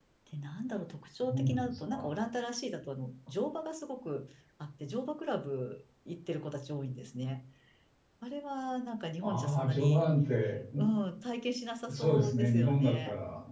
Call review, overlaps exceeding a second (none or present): present